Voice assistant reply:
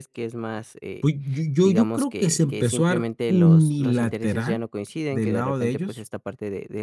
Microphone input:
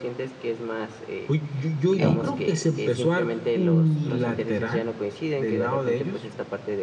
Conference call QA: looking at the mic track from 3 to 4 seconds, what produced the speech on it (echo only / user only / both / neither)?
echo only